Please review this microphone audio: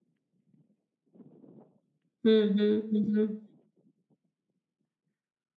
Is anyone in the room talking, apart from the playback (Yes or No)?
Yes